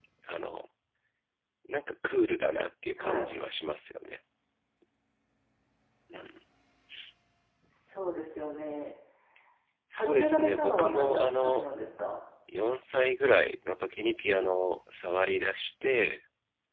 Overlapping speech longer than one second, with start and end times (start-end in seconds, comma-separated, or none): 9.9-11.7